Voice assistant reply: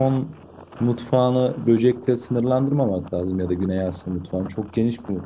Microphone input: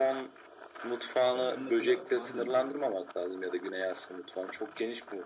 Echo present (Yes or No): Yes